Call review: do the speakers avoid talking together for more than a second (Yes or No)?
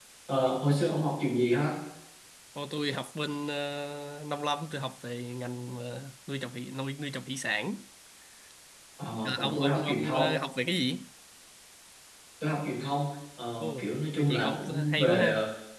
No